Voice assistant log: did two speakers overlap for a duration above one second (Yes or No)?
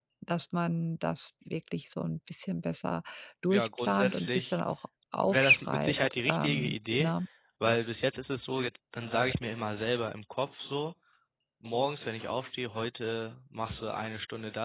Yes